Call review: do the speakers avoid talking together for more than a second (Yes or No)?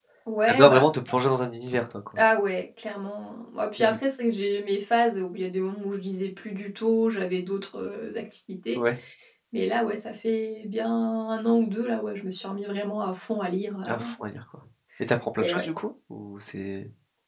Yes